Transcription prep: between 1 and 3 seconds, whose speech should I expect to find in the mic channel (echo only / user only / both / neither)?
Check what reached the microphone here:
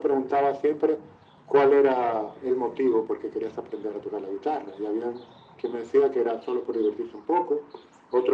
echo only